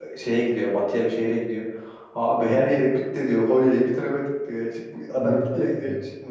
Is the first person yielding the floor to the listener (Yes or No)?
No